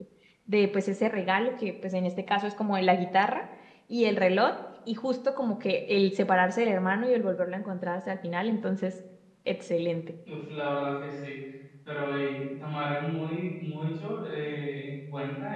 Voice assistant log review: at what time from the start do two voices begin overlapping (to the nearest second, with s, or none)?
none